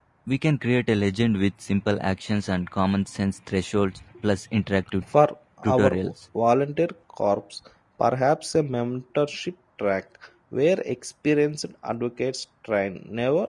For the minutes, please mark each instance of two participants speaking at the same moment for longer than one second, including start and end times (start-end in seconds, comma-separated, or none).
none